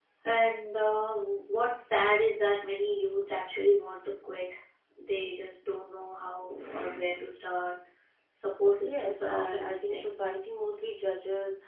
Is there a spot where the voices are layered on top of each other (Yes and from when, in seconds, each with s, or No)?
Yes, from 8.8 s